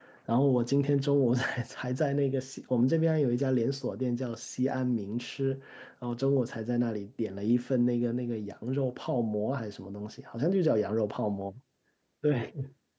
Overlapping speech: No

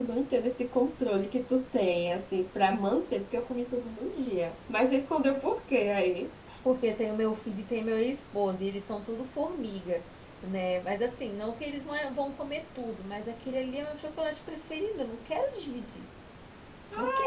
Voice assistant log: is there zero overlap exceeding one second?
Yes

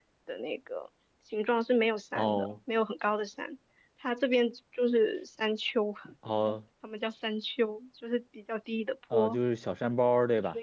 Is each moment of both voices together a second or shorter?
Yes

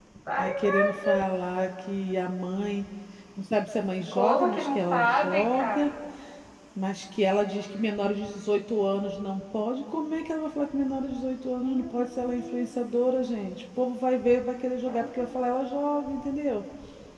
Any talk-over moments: Yes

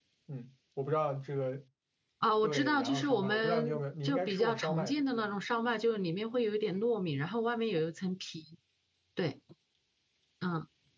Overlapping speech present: Yes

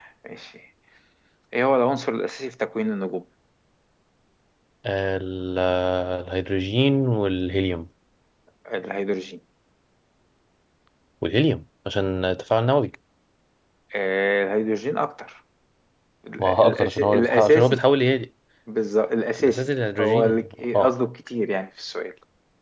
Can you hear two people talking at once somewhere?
Yes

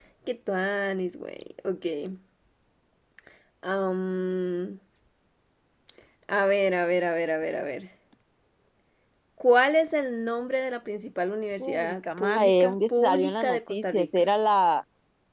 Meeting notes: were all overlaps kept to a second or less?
No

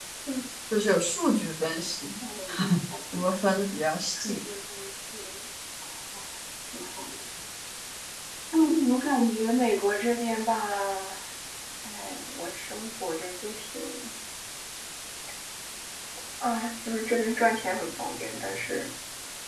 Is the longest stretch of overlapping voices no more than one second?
Yes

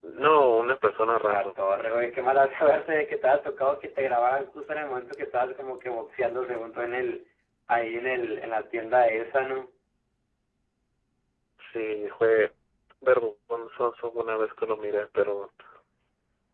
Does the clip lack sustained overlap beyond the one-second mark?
Yes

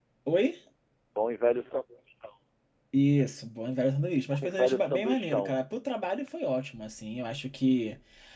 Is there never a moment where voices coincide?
No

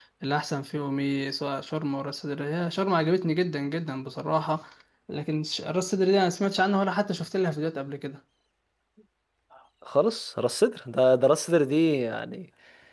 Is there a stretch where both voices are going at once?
No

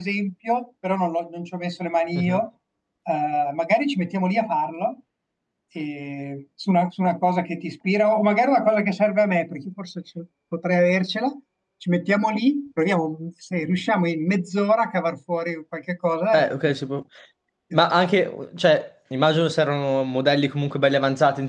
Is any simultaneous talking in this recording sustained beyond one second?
No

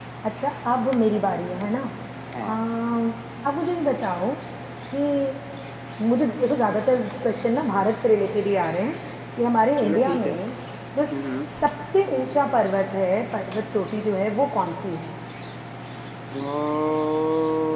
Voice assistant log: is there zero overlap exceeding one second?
Yes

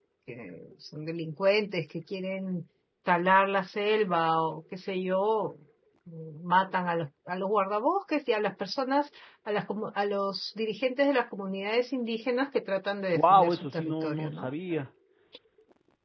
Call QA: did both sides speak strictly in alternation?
No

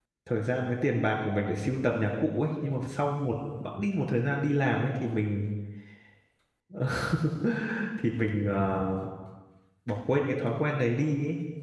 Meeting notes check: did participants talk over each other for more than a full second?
No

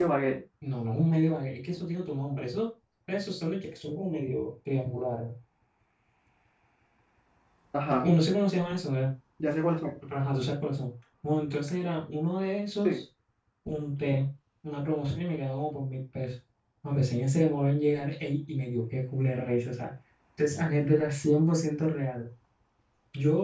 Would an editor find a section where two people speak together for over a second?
No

